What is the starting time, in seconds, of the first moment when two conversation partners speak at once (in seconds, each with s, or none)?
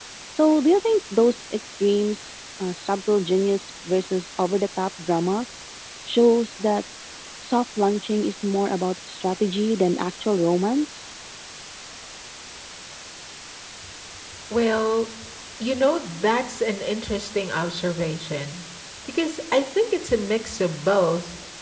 none